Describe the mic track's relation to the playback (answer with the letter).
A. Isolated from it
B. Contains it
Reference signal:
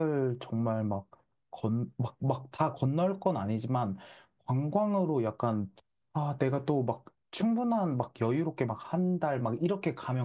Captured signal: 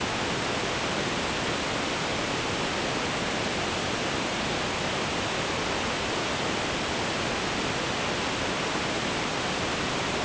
A